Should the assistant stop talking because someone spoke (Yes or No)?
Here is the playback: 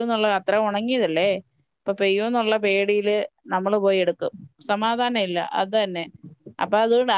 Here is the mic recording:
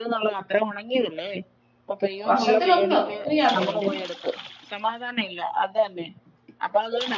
Yes